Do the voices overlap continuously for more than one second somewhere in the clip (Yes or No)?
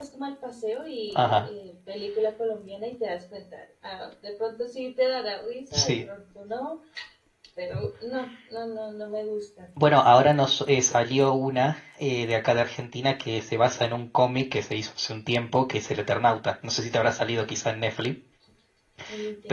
No